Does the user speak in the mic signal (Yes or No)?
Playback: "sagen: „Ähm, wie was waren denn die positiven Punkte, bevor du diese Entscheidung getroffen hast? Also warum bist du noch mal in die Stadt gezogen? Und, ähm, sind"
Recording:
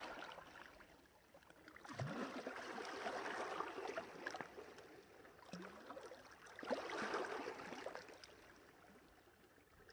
No